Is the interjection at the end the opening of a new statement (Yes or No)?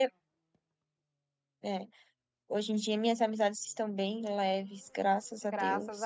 Yes